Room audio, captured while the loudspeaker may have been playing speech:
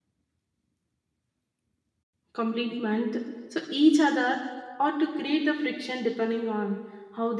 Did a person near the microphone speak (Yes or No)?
Yes